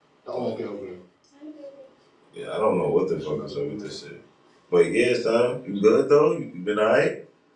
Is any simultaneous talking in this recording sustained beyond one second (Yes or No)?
Yes